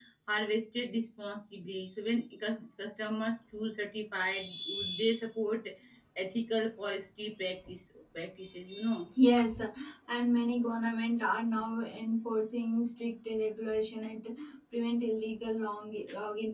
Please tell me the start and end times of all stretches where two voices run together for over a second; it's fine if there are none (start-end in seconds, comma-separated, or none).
none